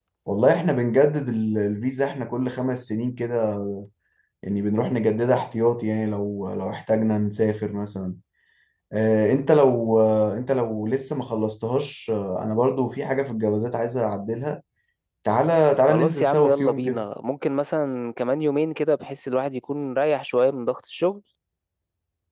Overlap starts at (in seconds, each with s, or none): 15.8 s